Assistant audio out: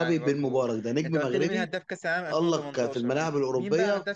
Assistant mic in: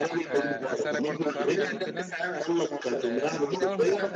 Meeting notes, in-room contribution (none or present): present